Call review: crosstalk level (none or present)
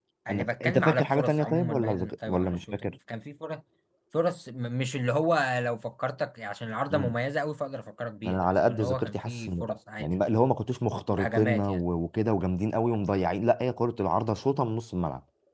present